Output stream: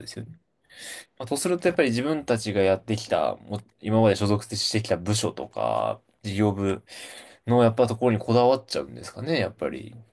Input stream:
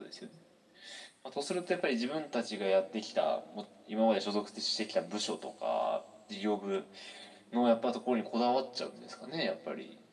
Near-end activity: none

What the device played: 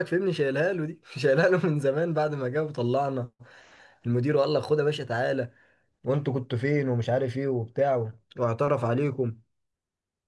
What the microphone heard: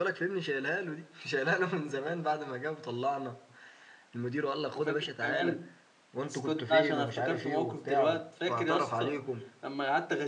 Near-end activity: present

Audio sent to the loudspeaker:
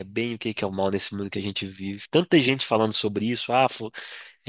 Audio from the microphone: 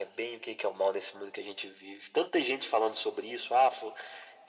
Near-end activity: none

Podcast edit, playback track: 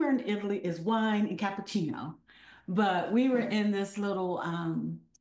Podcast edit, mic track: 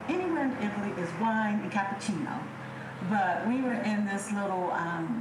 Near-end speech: none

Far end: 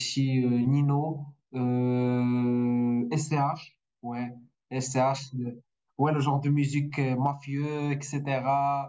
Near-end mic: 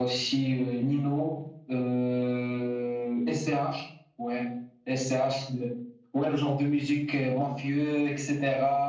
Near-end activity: none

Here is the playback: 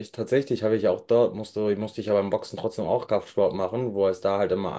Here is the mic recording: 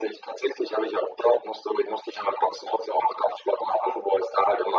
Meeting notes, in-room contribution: none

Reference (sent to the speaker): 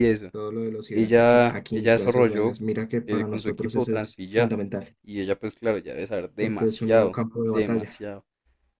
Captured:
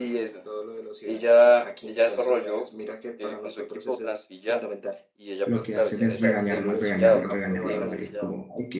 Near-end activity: present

